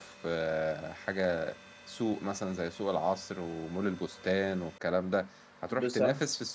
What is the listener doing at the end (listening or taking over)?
listening